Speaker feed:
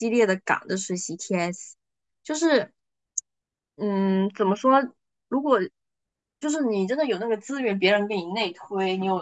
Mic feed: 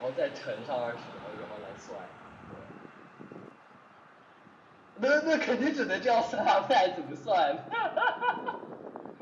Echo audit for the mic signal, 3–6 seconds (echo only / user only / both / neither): user only